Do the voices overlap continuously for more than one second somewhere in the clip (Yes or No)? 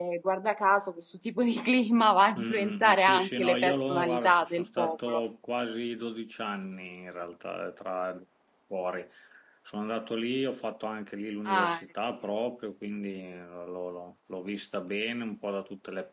Yes